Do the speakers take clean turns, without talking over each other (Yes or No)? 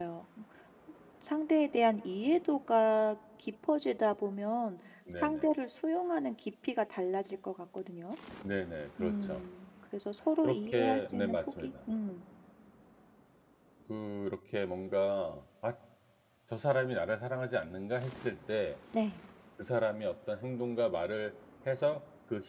No